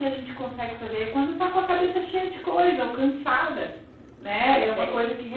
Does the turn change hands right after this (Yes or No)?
No